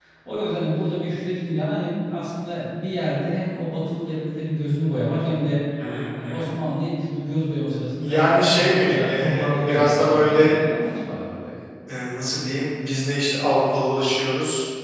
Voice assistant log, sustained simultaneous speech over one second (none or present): present